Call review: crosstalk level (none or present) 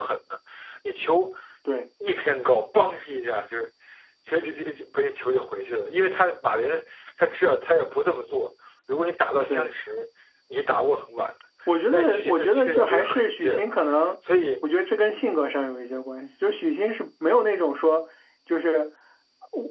present